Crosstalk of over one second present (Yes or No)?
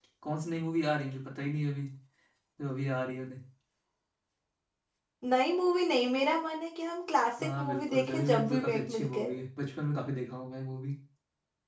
Yes